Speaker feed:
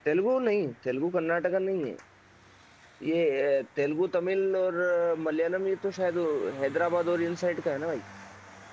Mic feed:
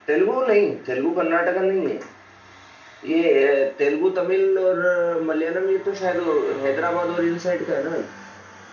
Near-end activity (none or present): none